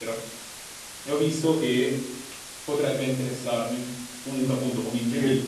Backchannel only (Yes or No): Yes